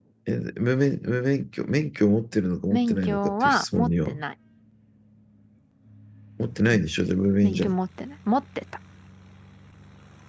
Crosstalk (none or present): present